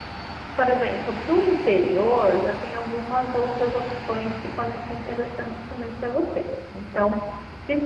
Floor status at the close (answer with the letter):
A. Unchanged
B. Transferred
A